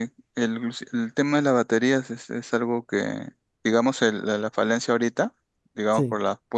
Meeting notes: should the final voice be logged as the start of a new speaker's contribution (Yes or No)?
No